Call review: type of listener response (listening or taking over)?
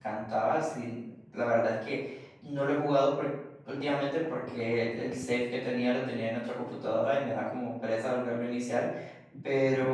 listening